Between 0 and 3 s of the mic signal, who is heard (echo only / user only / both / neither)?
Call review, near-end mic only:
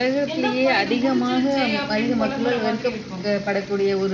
both